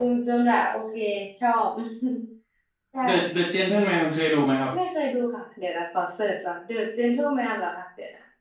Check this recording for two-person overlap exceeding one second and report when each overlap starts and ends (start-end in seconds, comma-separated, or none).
none